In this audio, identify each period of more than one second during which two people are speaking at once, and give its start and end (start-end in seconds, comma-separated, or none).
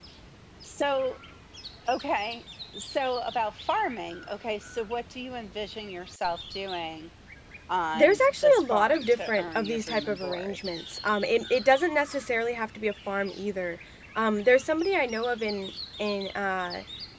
7.9-10.6